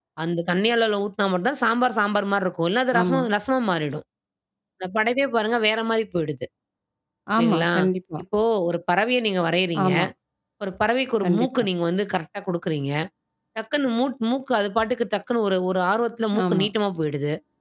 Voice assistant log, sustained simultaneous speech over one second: none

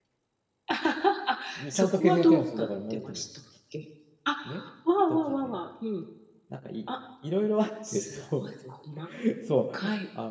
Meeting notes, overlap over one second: present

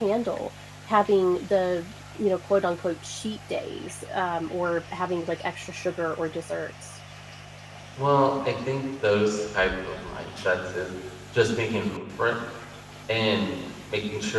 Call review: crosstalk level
none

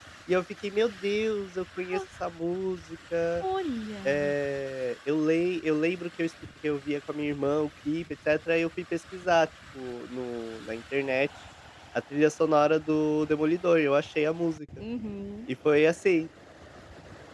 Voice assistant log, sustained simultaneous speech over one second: none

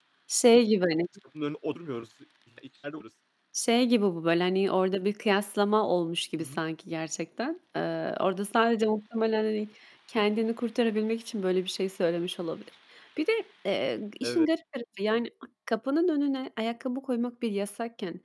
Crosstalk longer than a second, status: none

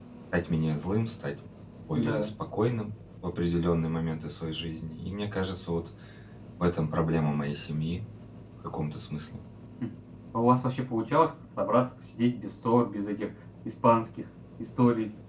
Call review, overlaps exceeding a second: none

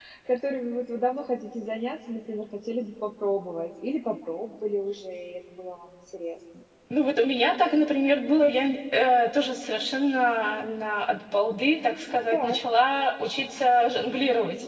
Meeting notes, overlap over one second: none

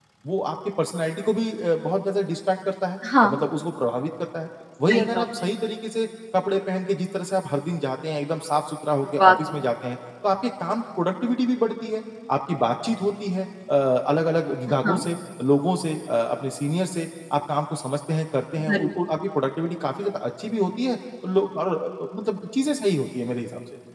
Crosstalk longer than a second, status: none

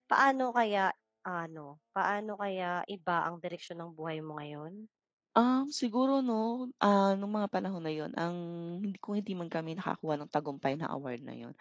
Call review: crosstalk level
none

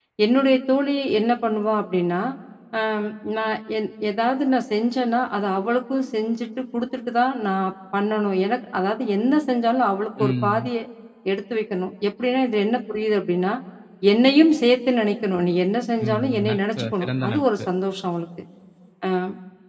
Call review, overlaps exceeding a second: present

